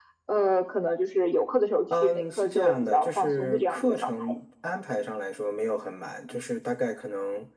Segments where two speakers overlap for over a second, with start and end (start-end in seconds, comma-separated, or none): 2.0-4.3